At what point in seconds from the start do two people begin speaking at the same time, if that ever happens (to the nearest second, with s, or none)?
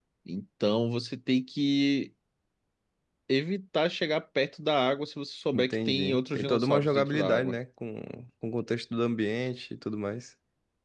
6 s